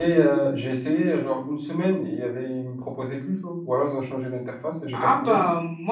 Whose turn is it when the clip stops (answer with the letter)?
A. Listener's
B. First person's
A